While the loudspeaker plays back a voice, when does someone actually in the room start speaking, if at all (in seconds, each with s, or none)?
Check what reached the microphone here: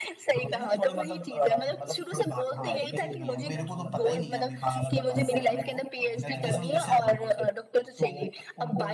2.6 s